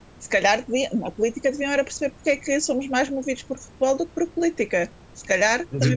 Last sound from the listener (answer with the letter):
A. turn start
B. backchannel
A